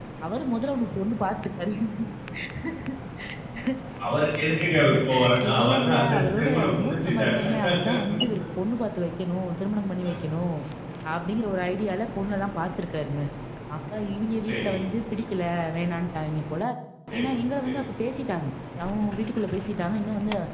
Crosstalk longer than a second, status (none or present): present